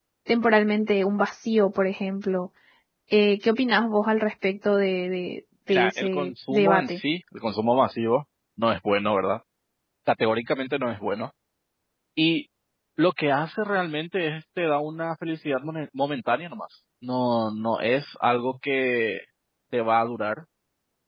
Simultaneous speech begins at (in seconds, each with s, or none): 5.7 s